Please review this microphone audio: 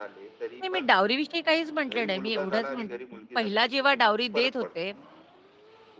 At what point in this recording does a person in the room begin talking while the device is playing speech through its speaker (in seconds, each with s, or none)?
0.6 s